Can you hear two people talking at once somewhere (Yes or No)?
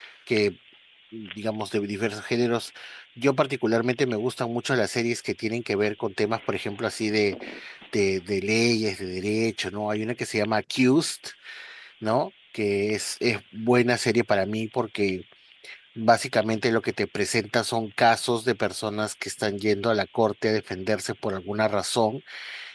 No